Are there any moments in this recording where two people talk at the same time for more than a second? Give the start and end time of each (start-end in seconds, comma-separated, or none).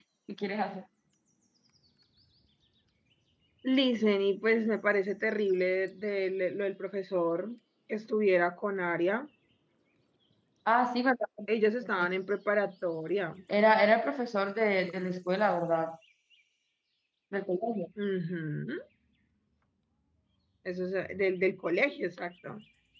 none